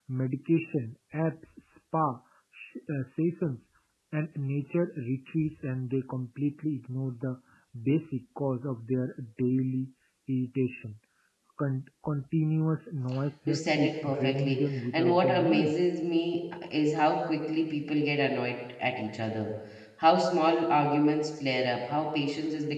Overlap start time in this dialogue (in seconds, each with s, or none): 13.5 s